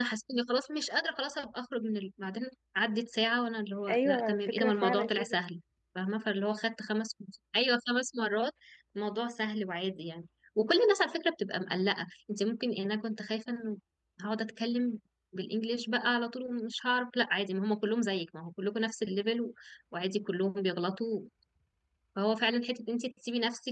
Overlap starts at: 3.9 s

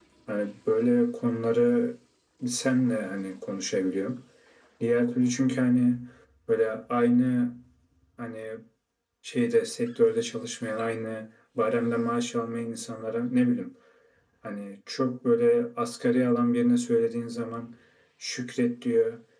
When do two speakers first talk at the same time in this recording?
none

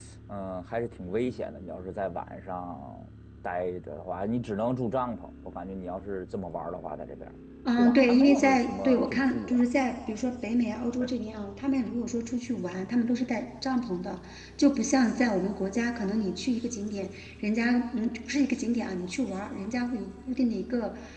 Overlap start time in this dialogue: 7.7 s

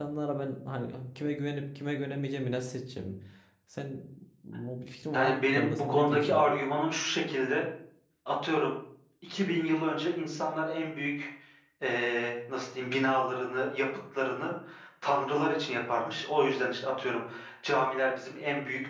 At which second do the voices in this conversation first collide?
5.1 s

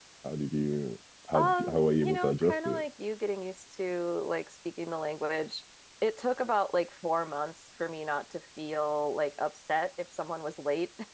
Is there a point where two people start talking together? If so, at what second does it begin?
1.3 s

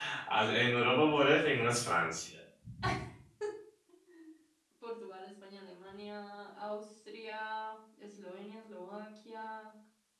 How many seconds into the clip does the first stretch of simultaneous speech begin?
none

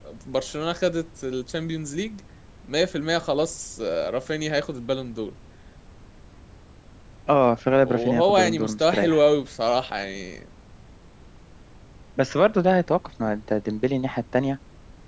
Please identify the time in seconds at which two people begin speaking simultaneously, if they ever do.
7.8 s

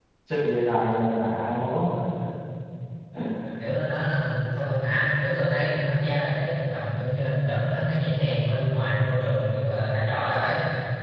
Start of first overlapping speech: none

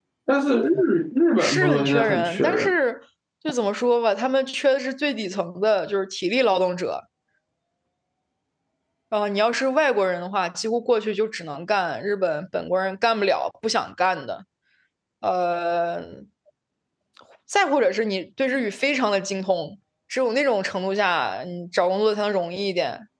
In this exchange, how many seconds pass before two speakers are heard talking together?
1.4 s

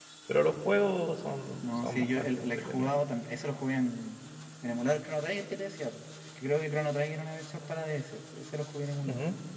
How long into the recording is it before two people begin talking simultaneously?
1.6 s

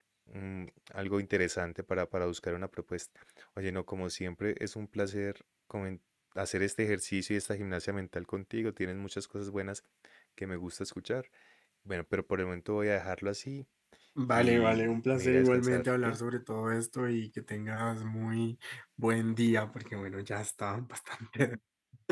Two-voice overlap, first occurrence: 14.4 s

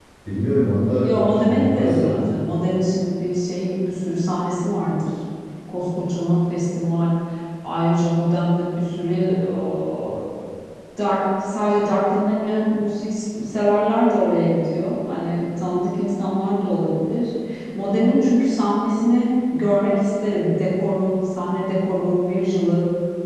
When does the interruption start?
1.0 s

